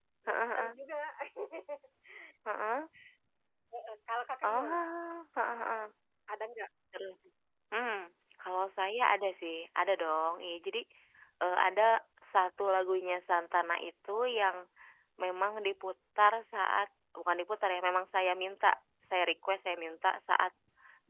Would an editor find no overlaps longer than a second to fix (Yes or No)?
Yes